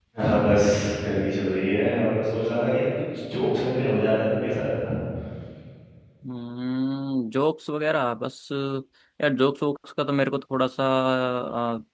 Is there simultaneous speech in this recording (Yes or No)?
No